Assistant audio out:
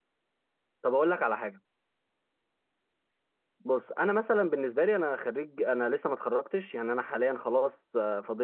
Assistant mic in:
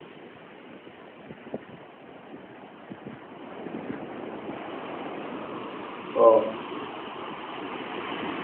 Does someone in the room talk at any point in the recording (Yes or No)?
Yes